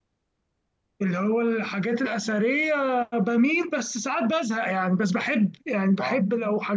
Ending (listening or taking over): listening